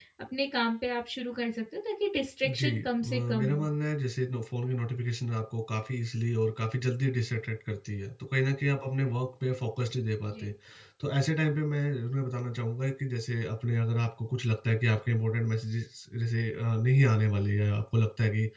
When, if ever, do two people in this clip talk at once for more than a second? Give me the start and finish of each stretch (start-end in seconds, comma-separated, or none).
2.4-3.7